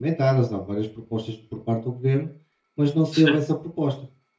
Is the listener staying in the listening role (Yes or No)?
Yes